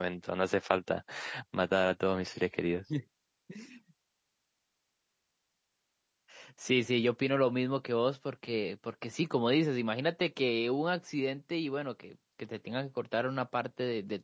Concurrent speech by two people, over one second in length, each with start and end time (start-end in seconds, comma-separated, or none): none